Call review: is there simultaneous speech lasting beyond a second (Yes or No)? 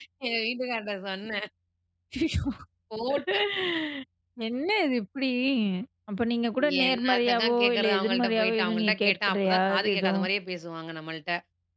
Yes